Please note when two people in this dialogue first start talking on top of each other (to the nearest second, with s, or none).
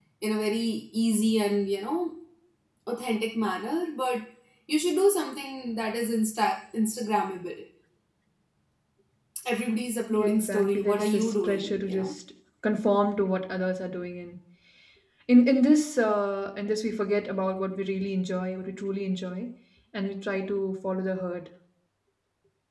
10 s